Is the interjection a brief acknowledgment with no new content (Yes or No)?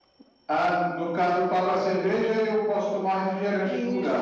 No